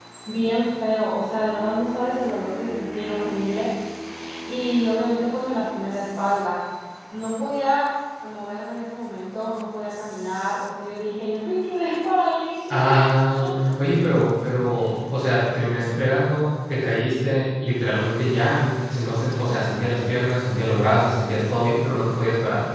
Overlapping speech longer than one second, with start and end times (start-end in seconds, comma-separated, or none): none